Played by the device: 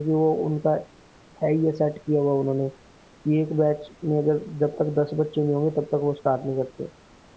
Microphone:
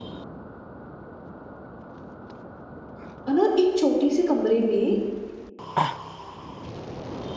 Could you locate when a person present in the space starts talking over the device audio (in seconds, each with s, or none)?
3.3 s